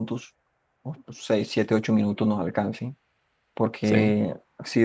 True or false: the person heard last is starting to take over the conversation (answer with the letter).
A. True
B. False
B